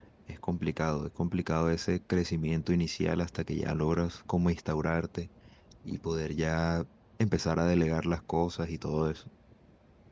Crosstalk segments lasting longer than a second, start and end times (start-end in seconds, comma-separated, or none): none